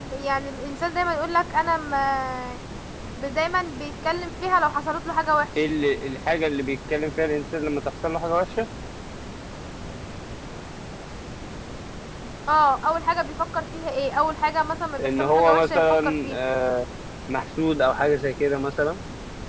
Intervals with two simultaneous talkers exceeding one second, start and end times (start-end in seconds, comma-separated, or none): 15.0-16.4